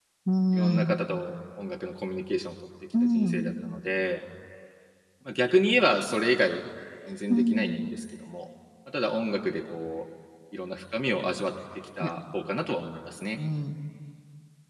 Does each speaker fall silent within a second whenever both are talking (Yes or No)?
Yes